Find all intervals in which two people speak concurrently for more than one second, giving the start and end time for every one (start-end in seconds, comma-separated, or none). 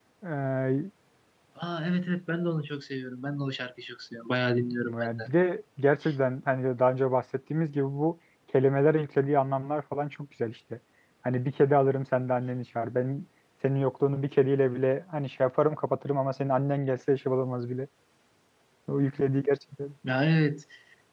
none